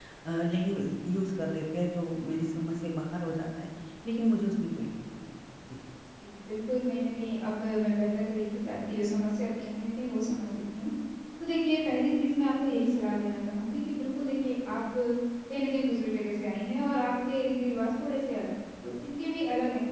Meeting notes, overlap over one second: none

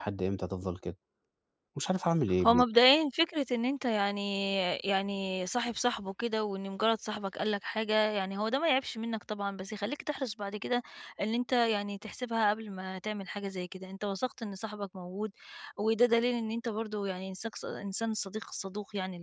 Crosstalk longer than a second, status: none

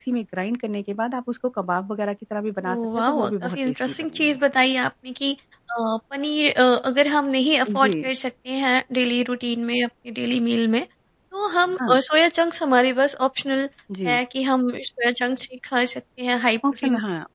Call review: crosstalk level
present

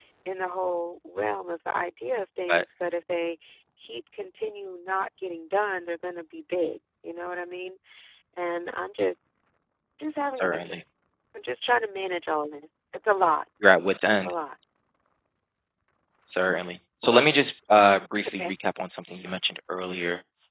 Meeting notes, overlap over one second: none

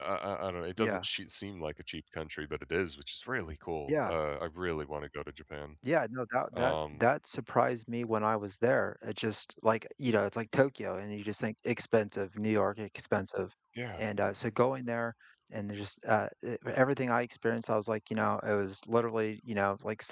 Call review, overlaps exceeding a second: none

